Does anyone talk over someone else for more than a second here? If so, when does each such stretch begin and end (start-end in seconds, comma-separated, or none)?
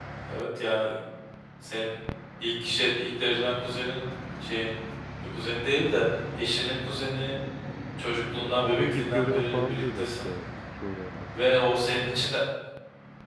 8.5-10.3